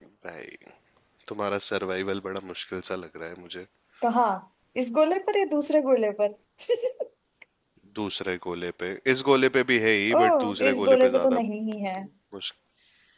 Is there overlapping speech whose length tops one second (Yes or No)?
Yes